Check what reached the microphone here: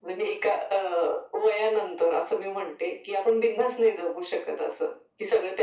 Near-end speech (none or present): none